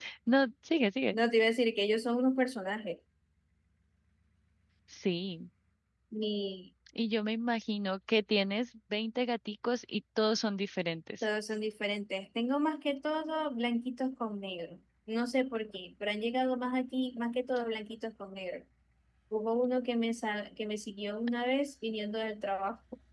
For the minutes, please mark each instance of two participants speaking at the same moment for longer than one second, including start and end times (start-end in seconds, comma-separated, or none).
none